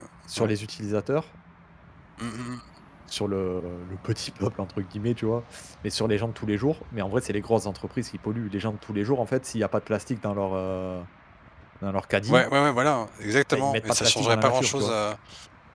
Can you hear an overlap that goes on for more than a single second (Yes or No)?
Yes